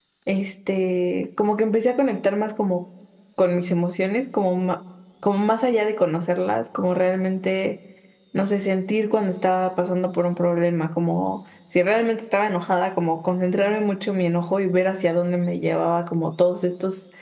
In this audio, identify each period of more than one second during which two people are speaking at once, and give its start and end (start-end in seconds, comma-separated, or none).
none